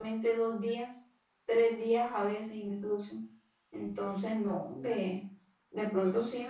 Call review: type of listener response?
listening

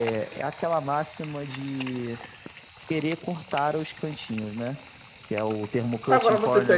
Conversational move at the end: taking over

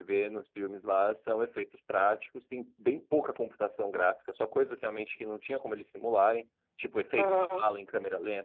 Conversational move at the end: listening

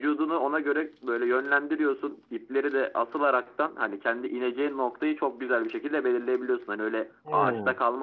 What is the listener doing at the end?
listening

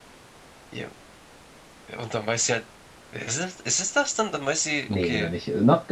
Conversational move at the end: taking over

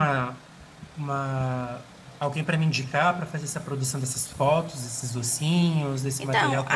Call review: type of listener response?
taking over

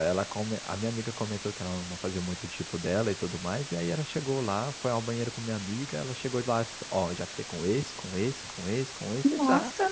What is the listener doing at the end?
listening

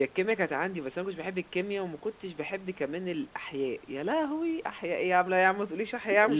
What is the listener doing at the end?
taking over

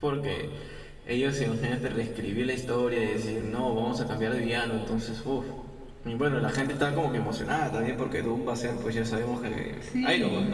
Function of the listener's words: taking over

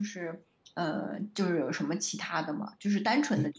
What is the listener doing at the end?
listening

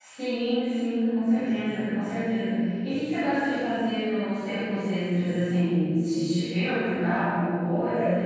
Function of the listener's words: taking over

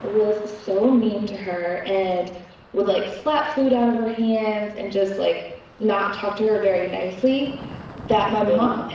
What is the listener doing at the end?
listening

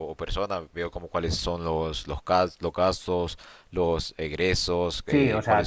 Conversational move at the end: taking over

